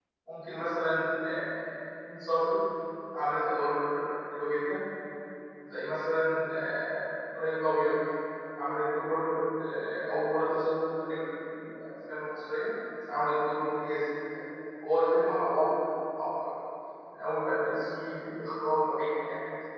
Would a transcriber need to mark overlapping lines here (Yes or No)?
No